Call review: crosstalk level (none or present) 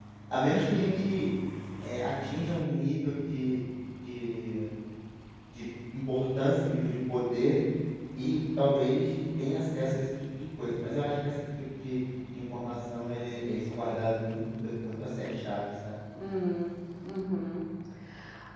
none